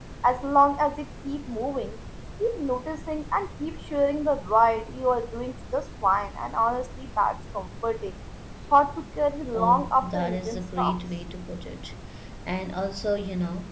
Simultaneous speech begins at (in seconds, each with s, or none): 9.5 s